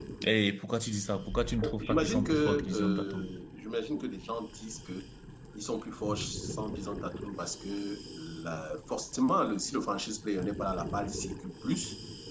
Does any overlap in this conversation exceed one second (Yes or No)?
Yes